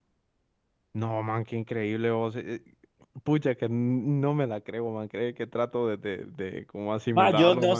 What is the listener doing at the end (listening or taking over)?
taking over